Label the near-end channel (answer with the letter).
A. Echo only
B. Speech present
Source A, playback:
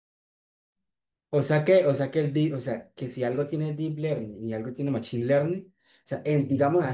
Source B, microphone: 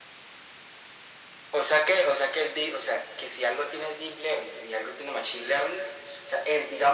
A